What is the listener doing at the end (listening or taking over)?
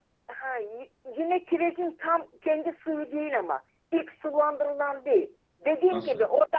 listening